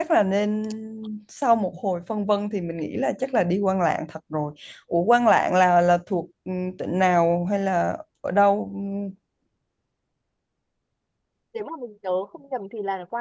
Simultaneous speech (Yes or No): No